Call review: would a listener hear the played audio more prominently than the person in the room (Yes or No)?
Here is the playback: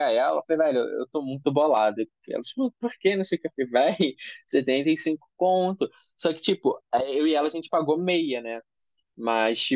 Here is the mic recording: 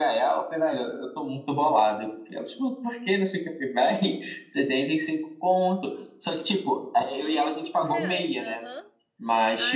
Yes